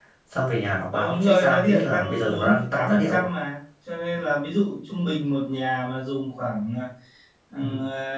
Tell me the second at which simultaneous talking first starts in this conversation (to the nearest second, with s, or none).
1 s